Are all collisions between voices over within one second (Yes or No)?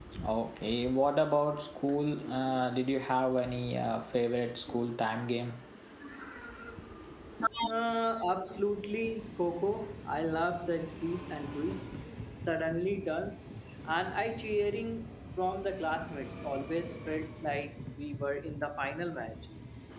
Yes